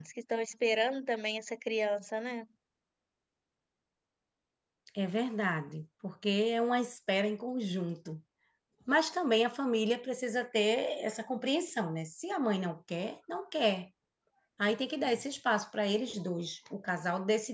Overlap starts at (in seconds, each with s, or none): none